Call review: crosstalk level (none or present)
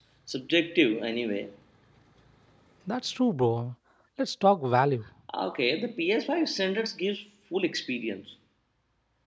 none